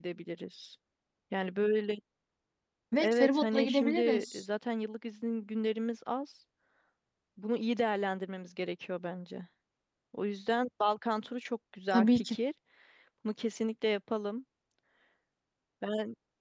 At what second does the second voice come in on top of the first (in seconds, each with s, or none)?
3.0 s